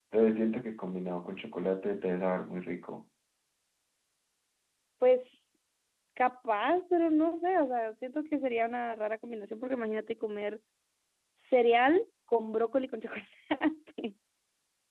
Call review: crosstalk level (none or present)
none